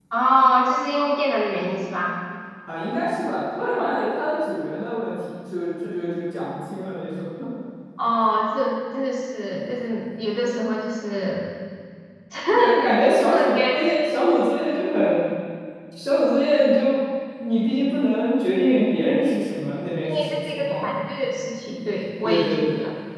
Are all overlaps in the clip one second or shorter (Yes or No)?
No